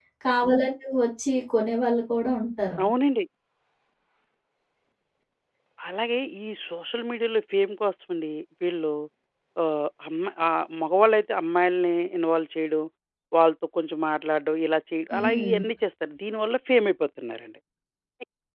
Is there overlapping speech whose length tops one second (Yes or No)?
No